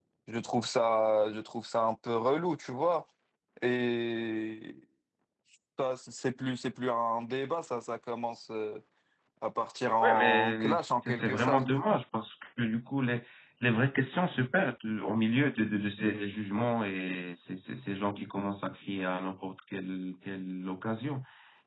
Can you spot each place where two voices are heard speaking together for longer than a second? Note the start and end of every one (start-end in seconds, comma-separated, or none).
10.0-11.6